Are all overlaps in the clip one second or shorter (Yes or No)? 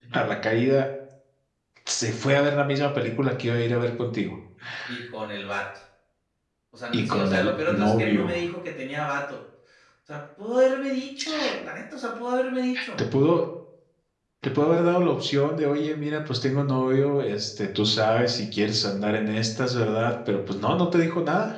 No